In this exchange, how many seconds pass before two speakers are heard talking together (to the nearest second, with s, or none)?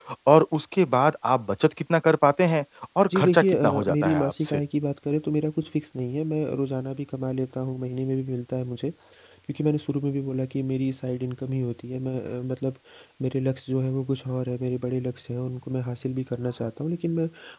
3 s